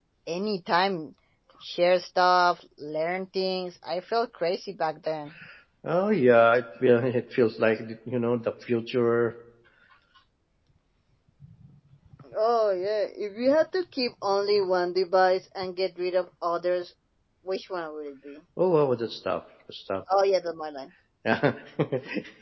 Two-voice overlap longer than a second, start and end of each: none

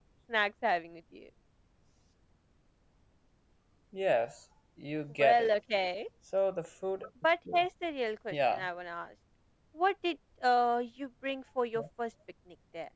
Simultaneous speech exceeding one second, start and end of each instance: none

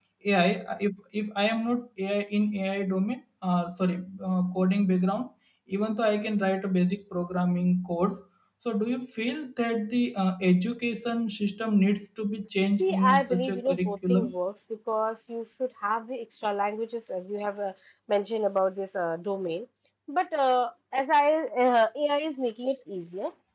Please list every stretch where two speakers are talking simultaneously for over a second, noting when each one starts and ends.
12.8-14.3

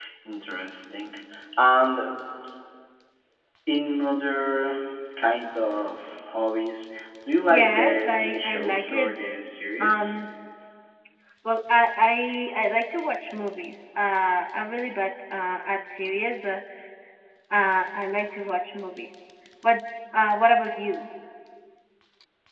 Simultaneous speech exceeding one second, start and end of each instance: 7.5-9.1

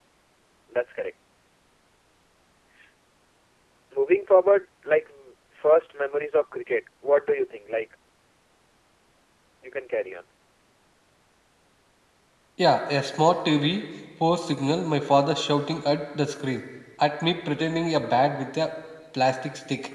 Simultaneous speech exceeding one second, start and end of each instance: none

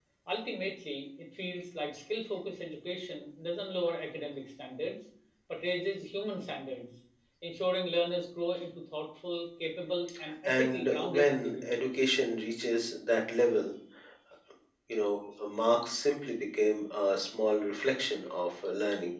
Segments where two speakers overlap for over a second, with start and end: 10.4-12.0

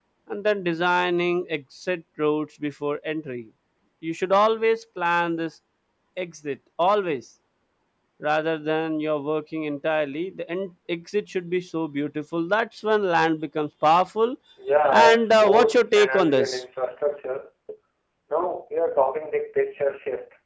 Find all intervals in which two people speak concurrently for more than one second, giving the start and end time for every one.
14.9-16.6

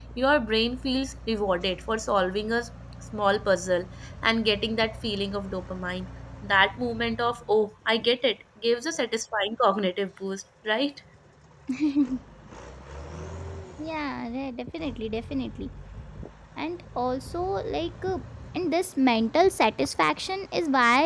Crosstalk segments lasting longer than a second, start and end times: none

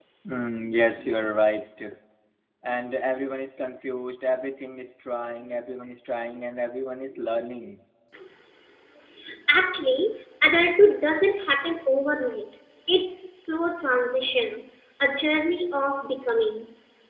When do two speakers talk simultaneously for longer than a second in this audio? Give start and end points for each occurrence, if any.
none

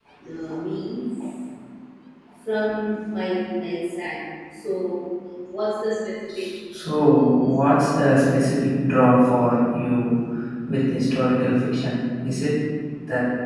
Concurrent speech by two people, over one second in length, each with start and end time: none

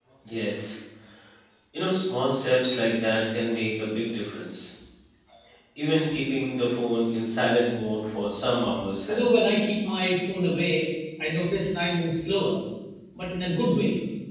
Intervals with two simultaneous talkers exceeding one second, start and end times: none

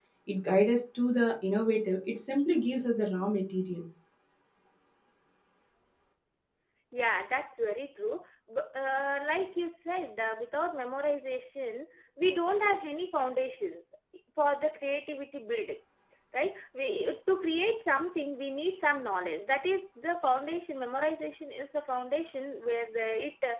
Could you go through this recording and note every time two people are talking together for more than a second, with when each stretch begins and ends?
none

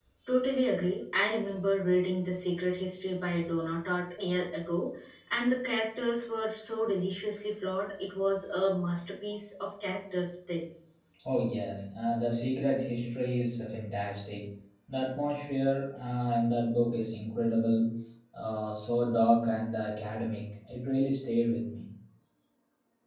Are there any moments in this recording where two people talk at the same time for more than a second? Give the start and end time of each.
none

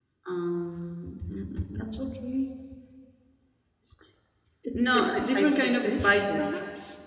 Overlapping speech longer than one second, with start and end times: 4.7-6.5

